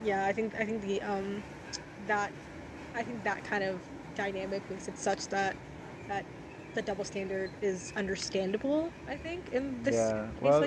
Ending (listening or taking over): taking over